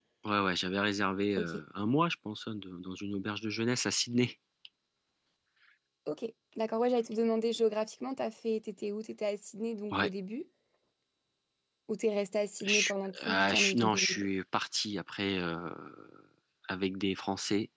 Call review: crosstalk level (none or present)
present